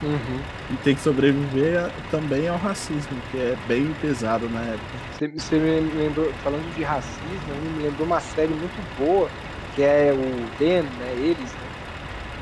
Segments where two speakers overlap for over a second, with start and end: none

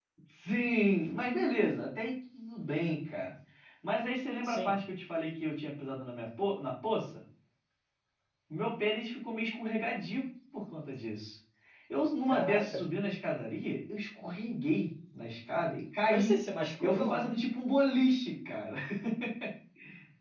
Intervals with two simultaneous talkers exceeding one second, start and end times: none

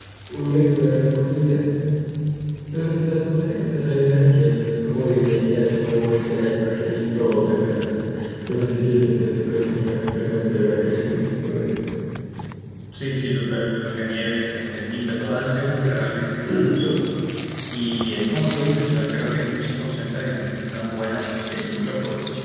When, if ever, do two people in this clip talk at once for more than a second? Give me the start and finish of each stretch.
none

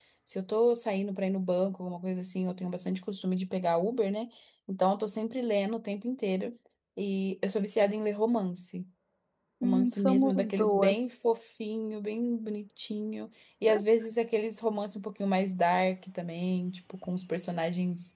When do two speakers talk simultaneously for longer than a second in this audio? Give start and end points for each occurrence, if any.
9.6-10.9

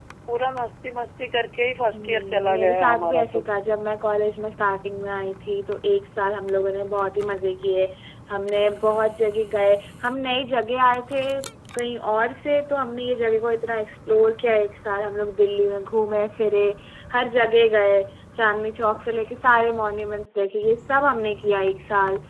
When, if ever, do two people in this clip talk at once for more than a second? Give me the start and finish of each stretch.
1.9-3.4

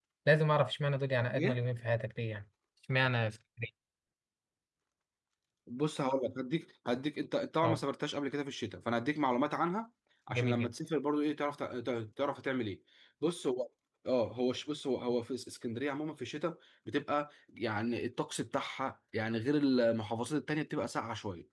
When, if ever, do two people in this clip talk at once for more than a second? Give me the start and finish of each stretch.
none

